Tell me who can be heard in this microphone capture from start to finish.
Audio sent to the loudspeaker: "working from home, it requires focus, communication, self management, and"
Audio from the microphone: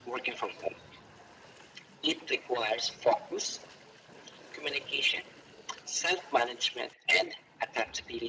echo only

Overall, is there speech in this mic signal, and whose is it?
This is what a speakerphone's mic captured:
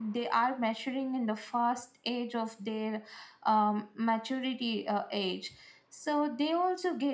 echo only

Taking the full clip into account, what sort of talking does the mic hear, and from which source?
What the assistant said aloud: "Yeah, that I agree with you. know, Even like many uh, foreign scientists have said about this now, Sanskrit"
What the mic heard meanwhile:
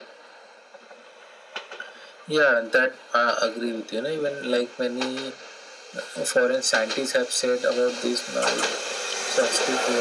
echo only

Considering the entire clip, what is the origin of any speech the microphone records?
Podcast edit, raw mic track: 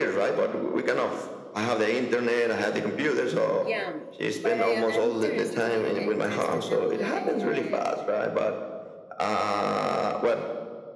both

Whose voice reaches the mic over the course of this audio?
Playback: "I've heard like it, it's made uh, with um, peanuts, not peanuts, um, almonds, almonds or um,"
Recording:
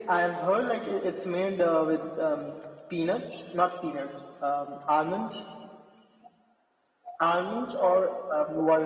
echo only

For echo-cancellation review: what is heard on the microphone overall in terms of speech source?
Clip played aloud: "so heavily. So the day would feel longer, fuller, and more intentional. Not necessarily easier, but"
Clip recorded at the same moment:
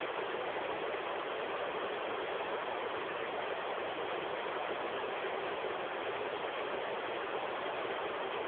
neither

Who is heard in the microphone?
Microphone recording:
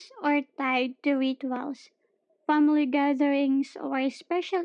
echo only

